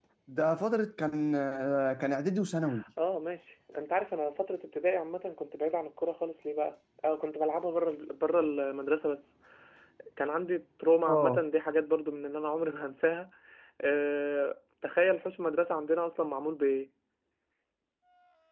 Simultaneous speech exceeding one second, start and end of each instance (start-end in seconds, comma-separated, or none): none